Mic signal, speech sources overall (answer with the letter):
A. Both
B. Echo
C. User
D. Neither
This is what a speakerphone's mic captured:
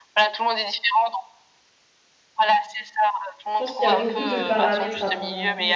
A